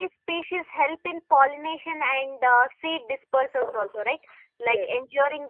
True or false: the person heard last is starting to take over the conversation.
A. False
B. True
A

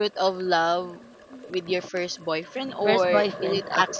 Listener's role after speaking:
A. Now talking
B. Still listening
B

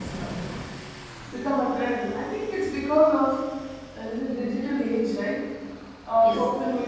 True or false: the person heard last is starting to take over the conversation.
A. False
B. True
A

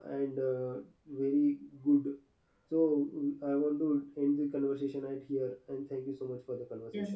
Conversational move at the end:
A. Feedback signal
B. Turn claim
B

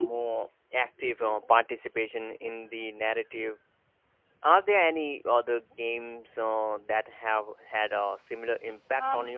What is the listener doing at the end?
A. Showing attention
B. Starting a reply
B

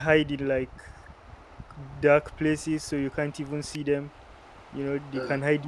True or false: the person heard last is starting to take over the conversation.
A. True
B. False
B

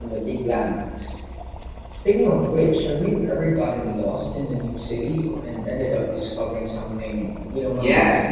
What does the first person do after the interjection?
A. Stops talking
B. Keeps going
A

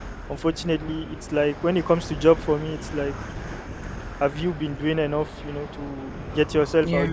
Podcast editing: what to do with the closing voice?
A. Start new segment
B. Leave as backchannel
B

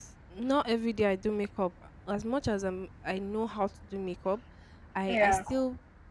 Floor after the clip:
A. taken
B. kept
B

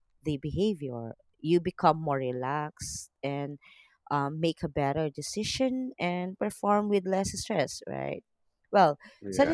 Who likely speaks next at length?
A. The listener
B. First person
B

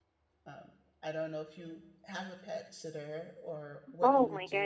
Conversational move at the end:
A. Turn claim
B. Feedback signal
A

